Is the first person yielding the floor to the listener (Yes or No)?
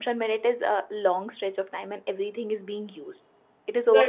No